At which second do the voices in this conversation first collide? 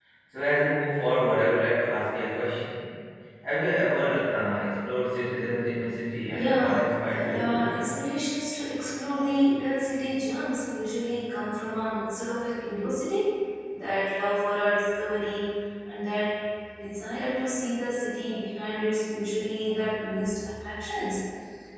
6.3 s

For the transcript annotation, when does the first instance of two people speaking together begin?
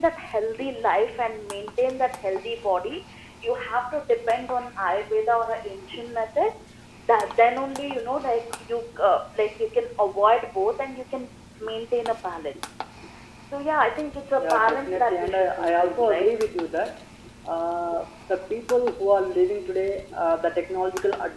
14.3 s

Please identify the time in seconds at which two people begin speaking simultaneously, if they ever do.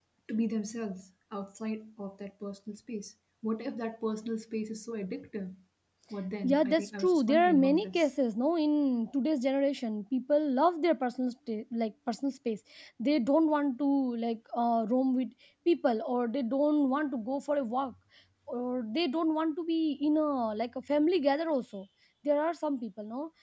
6.4 s

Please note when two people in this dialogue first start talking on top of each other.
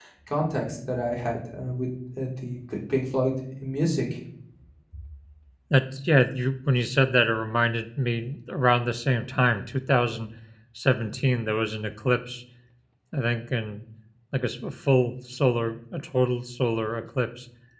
none

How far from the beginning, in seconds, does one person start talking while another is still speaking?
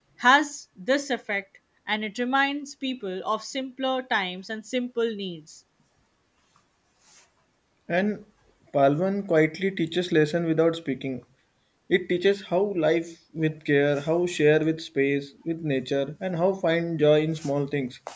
none

